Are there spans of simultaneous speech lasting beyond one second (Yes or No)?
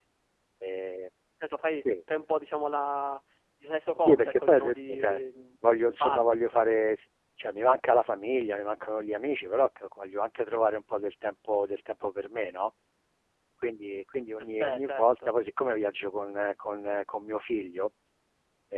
Yes